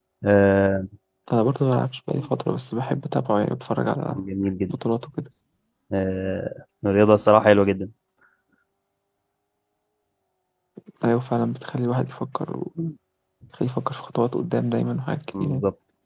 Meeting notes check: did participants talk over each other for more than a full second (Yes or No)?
No